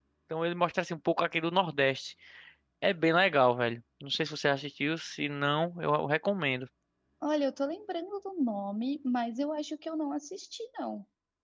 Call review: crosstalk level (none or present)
none